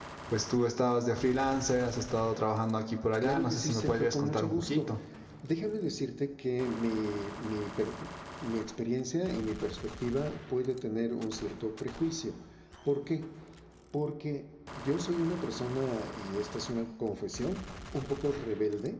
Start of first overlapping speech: 3 s

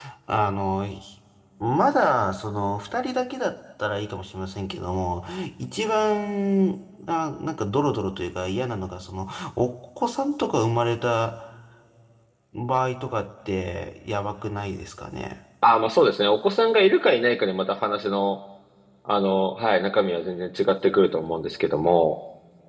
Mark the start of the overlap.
none

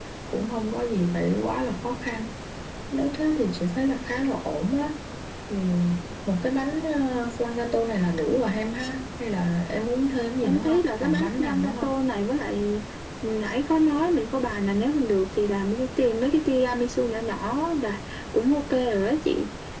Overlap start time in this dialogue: 10 s

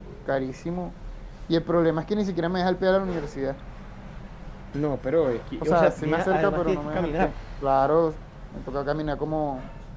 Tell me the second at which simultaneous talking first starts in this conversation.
6 s

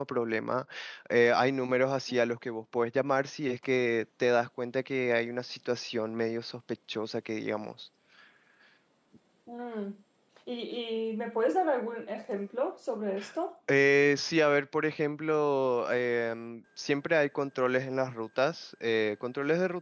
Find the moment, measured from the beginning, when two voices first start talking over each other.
none

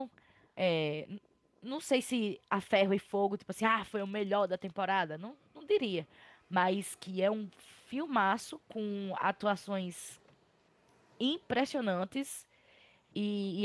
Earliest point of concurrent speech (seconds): none

